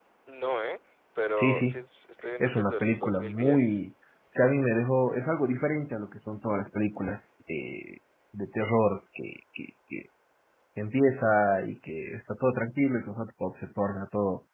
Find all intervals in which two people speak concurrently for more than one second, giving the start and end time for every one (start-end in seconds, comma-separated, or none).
2.4-3.8